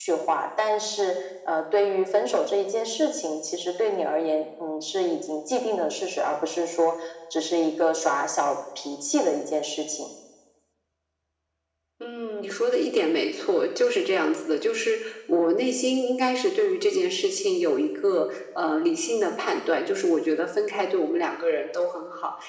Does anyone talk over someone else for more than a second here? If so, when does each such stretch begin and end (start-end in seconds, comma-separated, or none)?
none